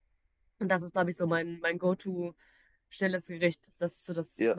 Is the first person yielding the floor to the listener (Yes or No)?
Yes